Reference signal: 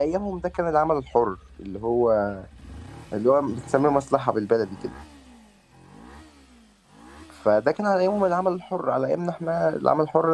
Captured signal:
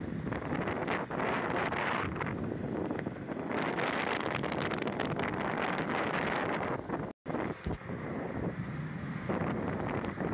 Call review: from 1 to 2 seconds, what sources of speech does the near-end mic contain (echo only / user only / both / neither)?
neither